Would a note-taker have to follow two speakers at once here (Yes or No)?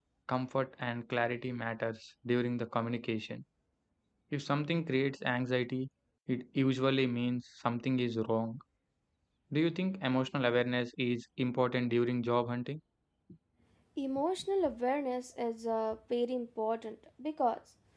No